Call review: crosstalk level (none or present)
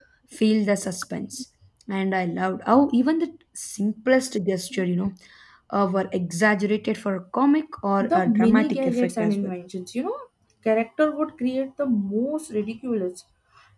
present